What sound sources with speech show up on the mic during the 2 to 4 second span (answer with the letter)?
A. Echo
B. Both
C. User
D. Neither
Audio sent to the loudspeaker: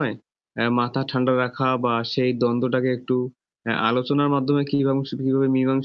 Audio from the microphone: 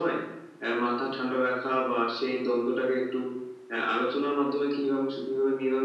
A